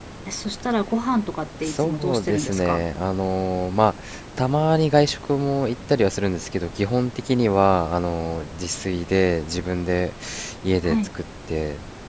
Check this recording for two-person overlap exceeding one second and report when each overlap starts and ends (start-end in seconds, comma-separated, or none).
1.6-2.8